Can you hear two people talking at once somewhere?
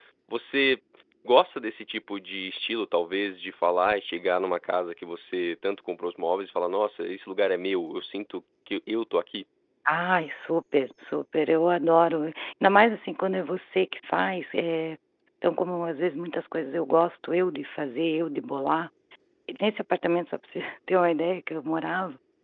No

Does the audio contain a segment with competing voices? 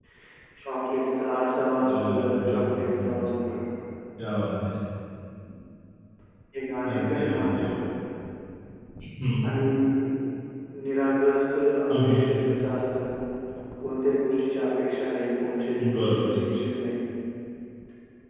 Yes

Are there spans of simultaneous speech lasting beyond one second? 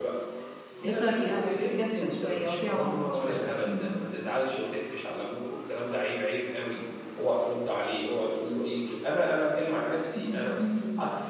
Yes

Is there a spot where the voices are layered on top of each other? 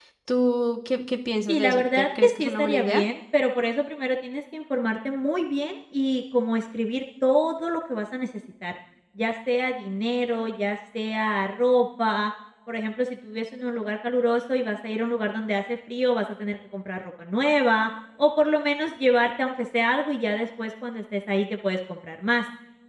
Yes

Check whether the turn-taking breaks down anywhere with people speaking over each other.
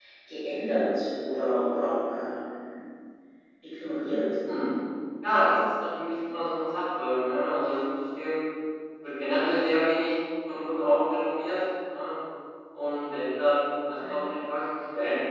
No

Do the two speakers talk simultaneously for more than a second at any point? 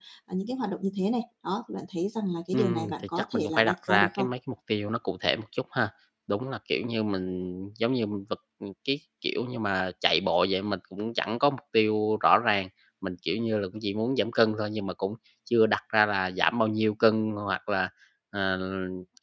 Yes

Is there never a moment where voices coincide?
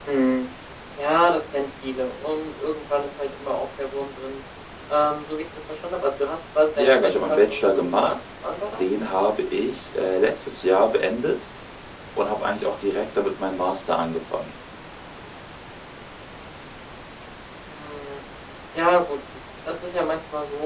No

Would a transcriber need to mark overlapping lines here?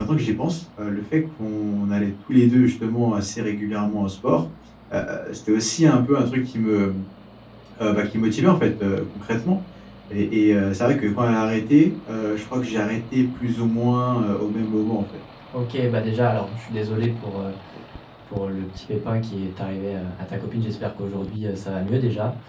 No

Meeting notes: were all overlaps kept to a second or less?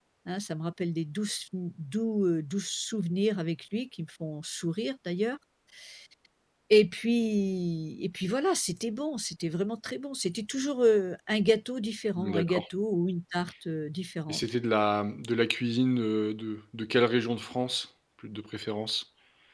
Yes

